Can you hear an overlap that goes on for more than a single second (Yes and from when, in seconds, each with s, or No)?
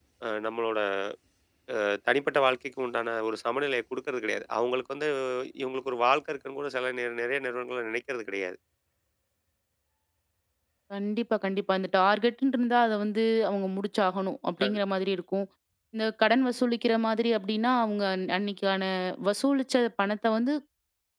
No